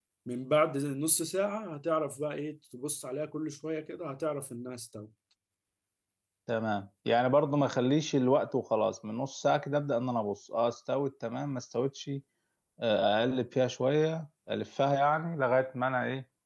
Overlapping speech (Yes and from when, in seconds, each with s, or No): No